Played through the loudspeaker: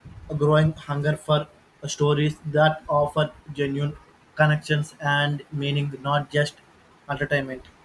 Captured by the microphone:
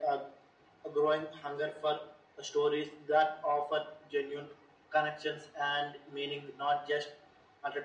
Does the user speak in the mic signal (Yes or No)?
No